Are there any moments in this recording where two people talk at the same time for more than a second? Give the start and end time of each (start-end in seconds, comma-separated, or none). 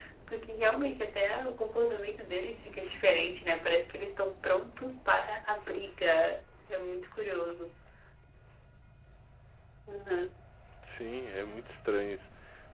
none